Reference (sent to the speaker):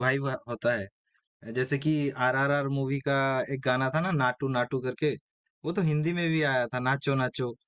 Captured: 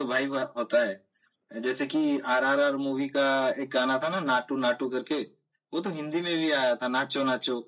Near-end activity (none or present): none